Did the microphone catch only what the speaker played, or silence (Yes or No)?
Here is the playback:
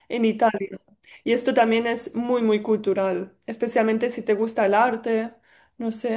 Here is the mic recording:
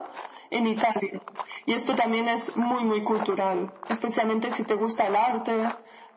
Yes